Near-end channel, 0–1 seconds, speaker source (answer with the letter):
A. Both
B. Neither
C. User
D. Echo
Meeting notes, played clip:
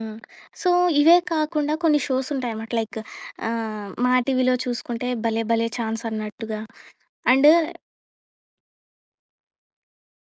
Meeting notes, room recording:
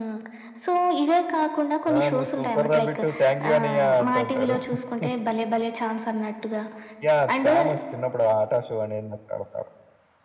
D